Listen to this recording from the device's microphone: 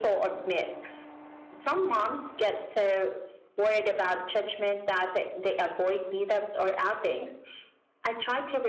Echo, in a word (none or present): present